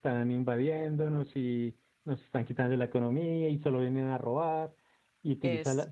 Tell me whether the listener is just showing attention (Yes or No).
Yes